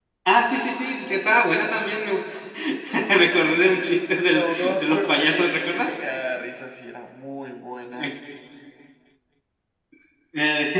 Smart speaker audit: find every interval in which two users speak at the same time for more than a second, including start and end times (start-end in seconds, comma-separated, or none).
4.2-5.9